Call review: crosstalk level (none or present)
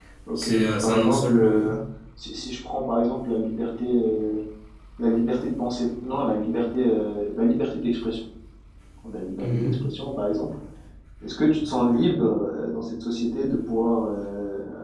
present